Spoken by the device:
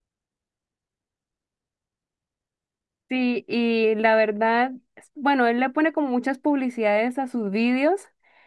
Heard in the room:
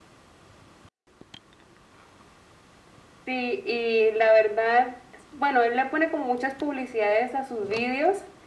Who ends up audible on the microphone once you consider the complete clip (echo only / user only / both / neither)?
echo only